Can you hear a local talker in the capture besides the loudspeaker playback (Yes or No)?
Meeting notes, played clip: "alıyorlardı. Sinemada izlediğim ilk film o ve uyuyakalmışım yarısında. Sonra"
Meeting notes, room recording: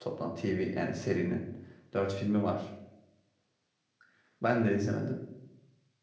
Yes